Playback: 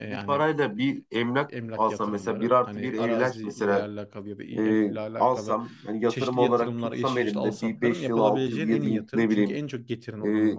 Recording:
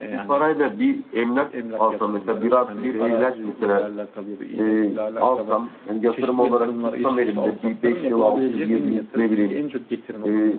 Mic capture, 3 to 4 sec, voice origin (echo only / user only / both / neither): echo only